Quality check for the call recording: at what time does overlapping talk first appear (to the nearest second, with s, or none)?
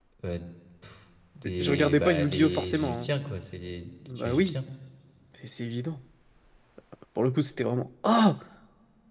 2 s